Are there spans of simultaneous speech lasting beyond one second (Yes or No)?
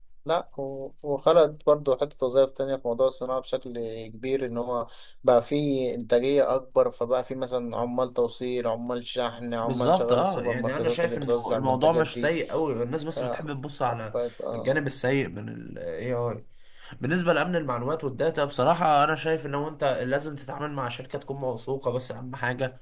Yes